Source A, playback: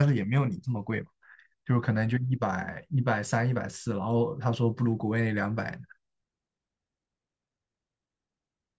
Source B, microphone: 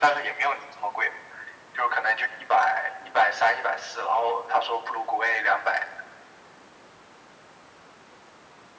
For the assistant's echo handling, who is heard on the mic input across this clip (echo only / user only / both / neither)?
echo only